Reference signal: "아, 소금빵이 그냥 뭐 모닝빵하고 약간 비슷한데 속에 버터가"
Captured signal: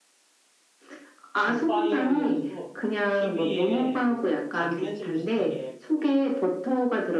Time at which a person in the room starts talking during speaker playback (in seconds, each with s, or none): 1.4 s